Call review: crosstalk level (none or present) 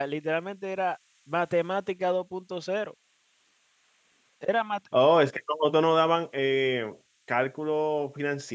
none